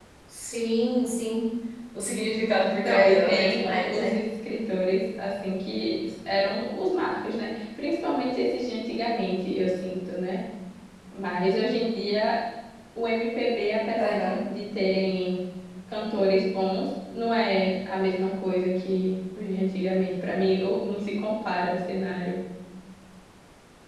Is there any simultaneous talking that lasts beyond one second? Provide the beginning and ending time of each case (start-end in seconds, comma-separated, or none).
2.6-4.2